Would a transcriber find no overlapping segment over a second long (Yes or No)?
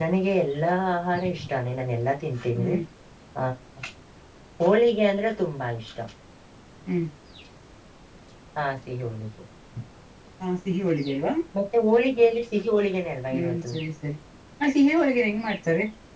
Yes